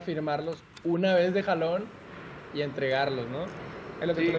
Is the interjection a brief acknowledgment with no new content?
No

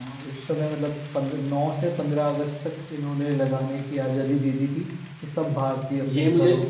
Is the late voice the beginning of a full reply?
No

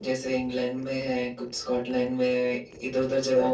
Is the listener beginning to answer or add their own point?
No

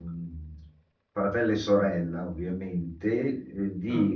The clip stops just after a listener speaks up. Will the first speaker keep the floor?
Yes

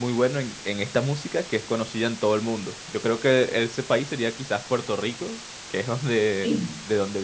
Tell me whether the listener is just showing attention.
Yes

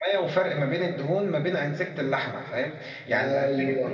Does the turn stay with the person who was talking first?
Yes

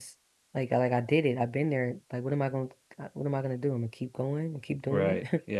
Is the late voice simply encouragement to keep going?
No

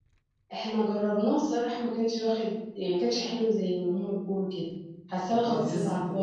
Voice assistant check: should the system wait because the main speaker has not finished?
No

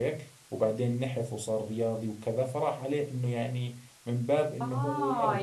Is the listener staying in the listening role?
No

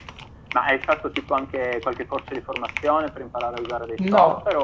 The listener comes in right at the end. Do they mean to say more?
Yes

